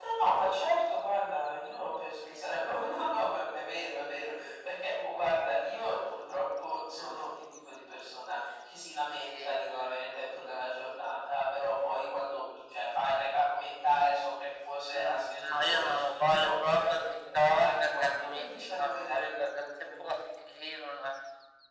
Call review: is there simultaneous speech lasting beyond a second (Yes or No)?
Yes